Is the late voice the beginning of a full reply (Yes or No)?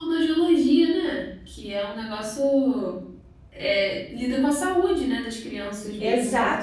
Yes